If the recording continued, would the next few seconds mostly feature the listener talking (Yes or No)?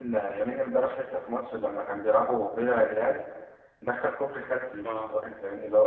No